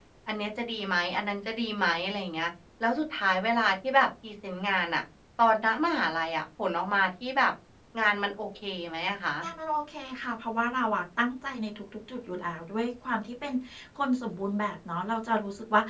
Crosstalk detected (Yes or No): No